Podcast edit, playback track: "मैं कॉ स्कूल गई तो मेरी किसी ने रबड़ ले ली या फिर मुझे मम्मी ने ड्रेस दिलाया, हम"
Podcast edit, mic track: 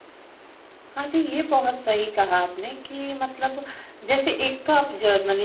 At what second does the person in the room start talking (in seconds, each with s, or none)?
1.0 s